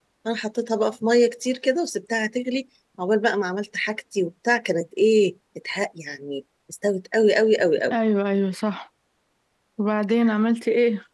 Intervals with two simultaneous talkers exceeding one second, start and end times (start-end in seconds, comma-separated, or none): none